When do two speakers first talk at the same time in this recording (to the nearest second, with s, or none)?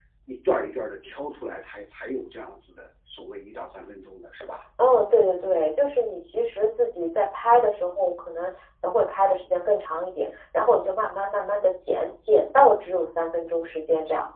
none